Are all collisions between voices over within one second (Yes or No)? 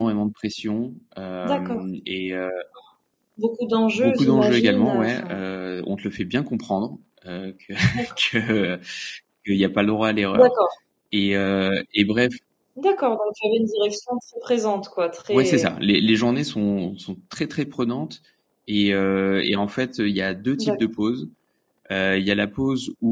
No